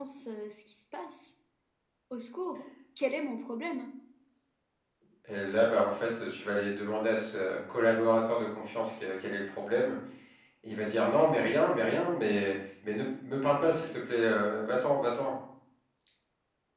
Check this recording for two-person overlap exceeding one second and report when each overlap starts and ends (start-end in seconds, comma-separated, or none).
none